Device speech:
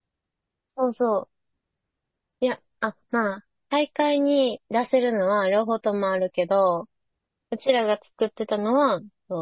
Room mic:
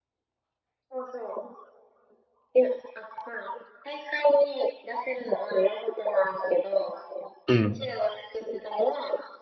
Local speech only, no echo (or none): うん。